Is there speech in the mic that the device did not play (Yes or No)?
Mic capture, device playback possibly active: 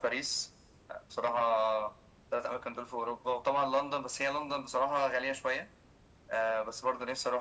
No